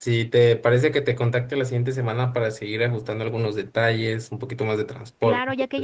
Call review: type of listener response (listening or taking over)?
taking over